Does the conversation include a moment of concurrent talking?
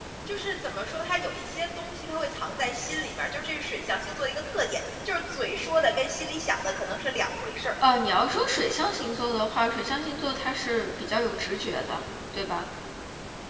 No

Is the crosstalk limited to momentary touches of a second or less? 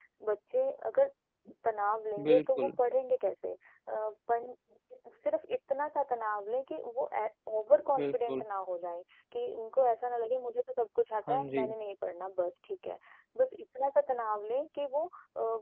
Yes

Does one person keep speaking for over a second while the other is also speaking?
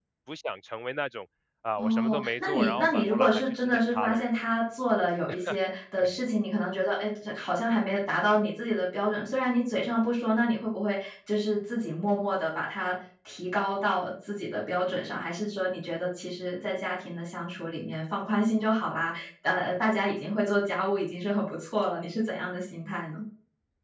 Yes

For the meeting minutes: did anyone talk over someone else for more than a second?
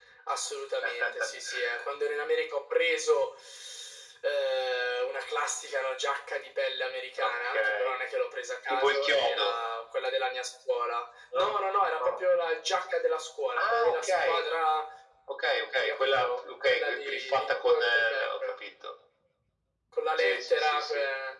Yes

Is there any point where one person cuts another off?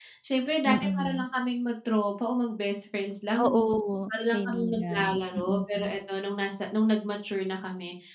Yes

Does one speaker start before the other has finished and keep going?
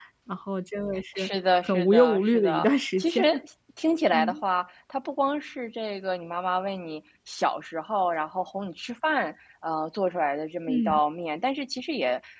Yes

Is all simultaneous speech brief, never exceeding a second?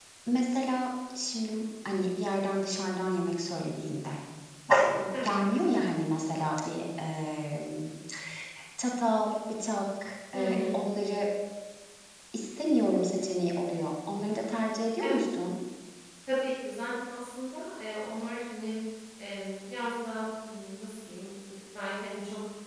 Yes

